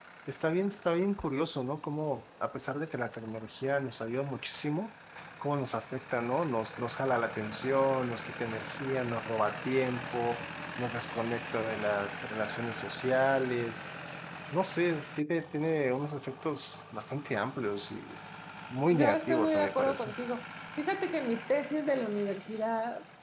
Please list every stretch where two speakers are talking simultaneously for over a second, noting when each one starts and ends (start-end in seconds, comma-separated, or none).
18.9-20.2